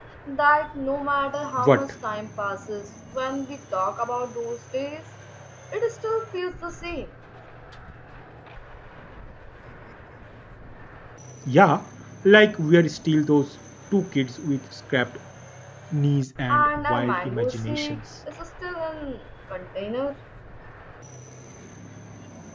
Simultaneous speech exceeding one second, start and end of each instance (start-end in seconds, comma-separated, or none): 16.5-18.0